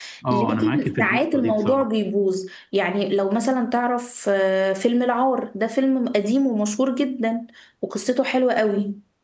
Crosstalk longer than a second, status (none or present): present